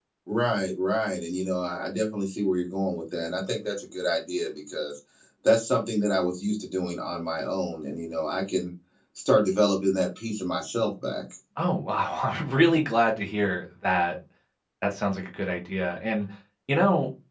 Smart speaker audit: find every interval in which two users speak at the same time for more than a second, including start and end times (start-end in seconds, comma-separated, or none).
none